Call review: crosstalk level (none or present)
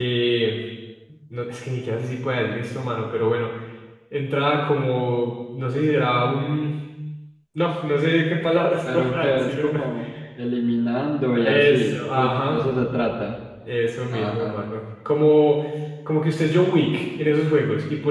present